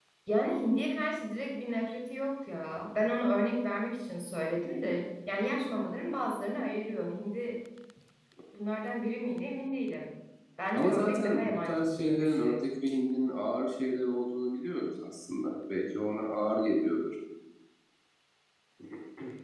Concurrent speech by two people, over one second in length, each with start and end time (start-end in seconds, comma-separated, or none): 10.7-12.6